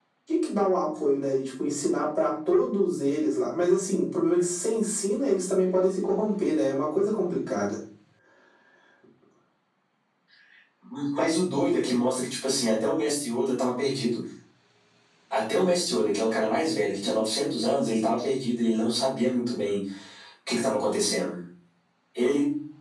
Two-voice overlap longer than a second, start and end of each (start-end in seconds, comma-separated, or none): none